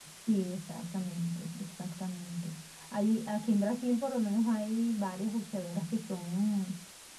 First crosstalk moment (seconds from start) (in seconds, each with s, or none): none